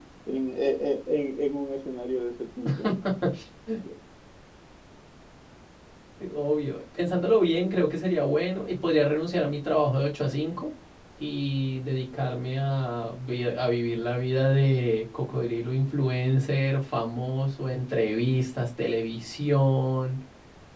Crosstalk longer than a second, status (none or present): none